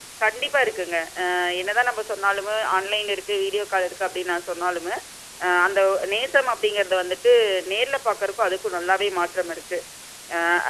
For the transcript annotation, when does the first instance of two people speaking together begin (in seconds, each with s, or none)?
none